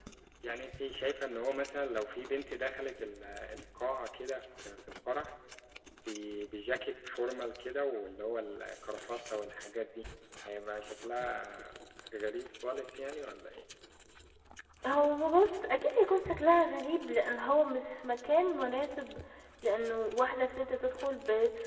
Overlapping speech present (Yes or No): No